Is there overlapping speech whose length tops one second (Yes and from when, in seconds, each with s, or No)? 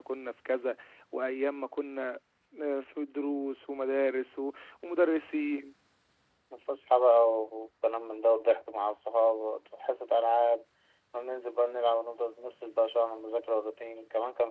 No